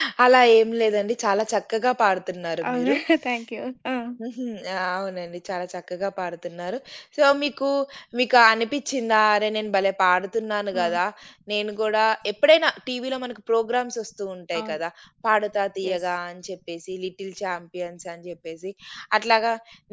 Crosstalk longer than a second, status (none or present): none